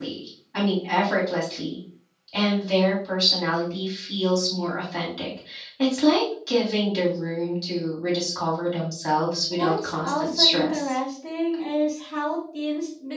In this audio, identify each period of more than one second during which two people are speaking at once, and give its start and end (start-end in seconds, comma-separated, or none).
9.5-11.0